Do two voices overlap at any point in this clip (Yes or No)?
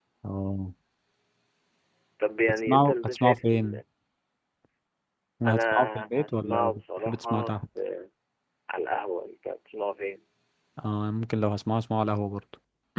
Yes